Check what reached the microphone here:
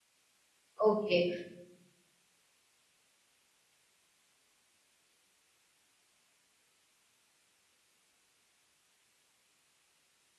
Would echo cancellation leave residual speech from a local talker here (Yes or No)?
Yes